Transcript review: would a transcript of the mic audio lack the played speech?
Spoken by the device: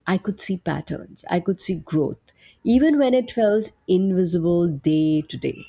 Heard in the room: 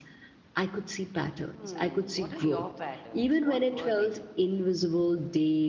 No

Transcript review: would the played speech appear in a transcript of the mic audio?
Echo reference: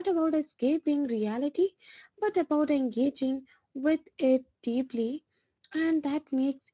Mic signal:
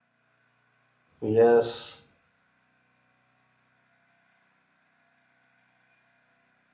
No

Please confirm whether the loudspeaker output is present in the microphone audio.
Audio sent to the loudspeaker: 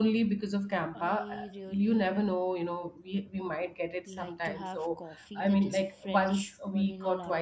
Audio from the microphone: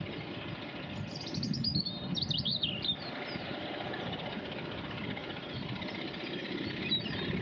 No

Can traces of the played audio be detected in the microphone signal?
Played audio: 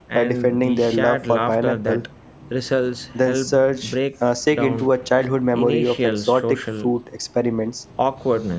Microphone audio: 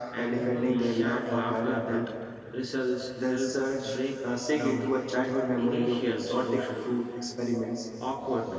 Yes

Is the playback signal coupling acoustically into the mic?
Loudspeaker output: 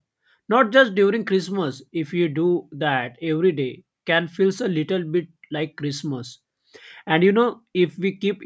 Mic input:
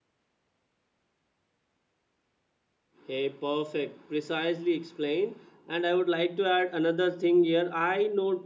No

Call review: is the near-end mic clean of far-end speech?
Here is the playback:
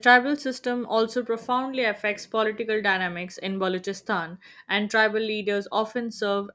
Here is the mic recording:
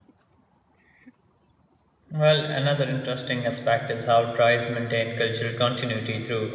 Yes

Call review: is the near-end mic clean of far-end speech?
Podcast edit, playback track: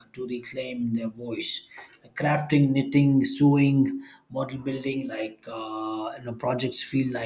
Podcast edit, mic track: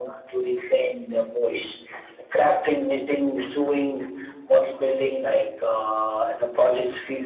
No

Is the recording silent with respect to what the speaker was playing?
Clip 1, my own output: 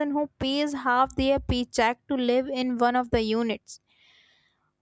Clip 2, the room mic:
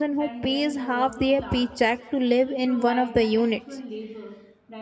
No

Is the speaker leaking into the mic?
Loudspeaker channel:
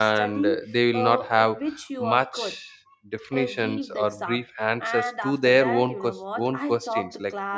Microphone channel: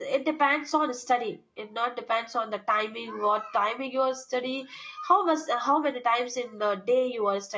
No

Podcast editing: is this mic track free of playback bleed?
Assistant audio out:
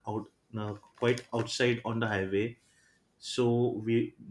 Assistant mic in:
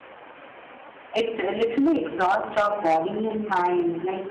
Yes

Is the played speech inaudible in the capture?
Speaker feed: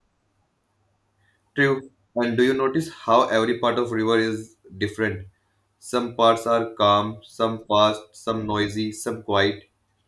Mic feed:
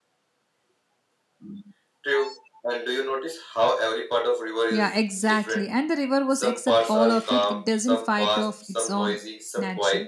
No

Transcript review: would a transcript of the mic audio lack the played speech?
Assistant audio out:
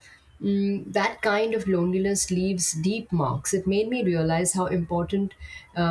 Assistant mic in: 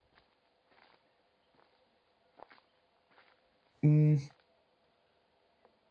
Yes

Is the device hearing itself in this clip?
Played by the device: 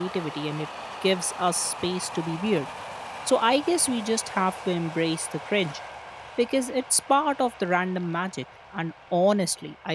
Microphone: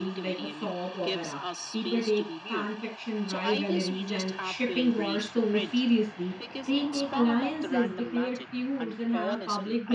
Yes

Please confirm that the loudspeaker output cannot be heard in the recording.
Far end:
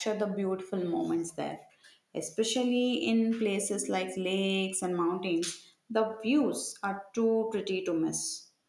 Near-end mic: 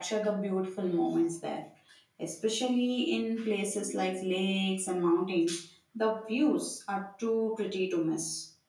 No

